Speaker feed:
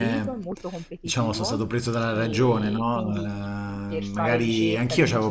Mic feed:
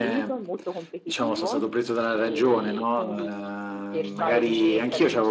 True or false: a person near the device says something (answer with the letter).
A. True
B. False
A